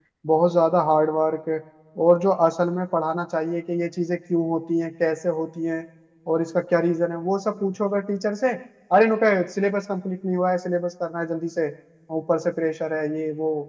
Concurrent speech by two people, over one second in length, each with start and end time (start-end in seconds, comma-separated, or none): none